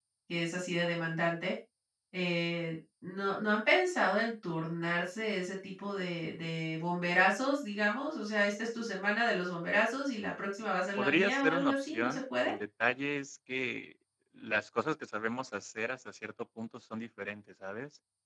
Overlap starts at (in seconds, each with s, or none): 11.0 s